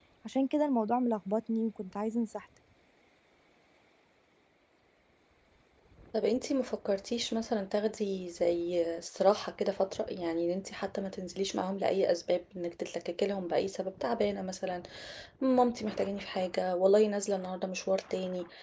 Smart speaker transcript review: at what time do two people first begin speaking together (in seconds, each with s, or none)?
none